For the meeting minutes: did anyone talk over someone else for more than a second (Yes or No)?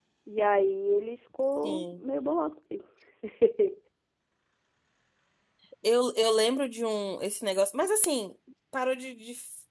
No